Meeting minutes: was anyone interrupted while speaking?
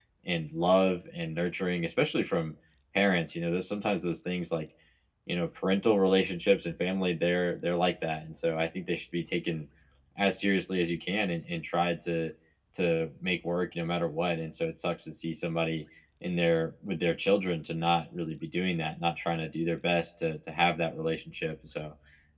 No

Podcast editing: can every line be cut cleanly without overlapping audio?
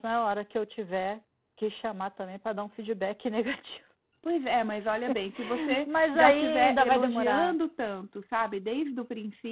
No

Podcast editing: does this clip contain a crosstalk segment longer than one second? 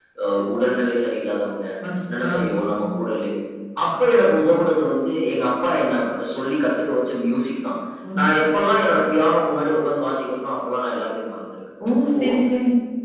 No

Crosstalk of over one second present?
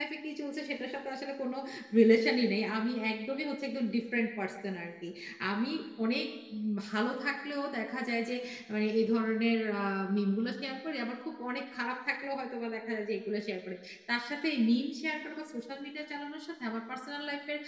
No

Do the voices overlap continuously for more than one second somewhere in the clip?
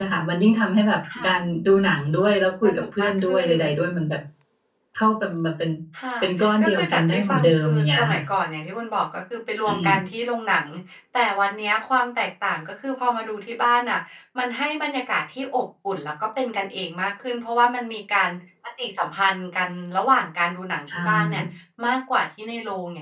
Yes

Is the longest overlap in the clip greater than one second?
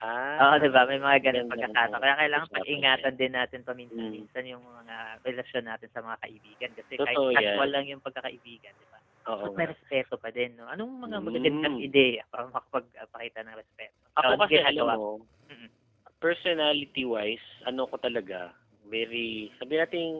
Yes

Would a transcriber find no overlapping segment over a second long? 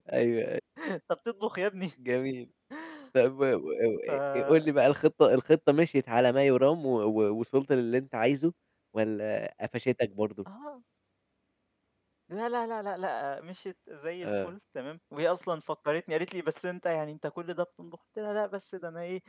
Yes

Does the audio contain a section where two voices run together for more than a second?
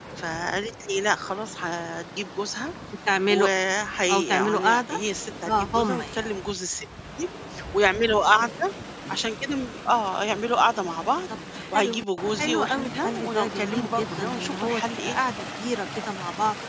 Yes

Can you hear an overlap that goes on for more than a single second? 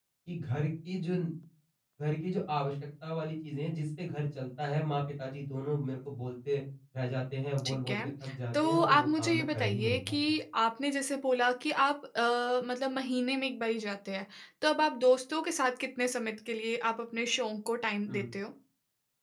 Yes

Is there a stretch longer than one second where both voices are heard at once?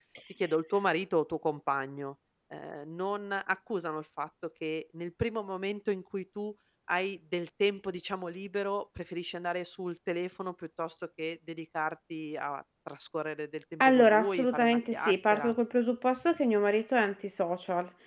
Yes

